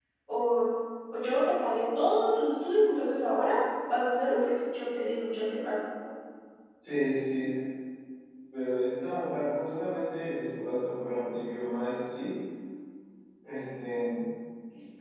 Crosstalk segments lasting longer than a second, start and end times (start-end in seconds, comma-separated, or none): none